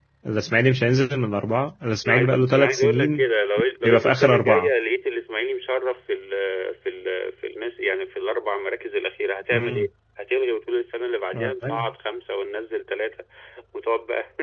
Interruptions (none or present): present